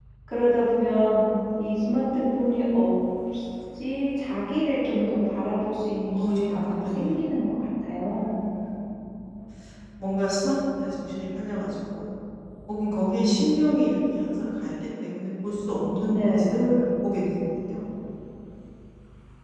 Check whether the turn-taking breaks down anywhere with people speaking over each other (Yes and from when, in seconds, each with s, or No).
Yes, from 6.1 s